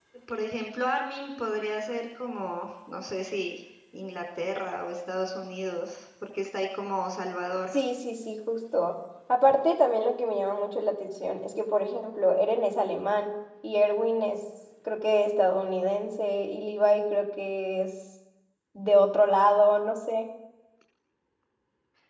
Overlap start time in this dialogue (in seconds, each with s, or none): none